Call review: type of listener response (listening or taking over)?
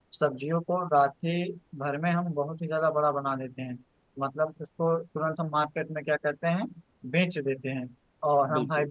listening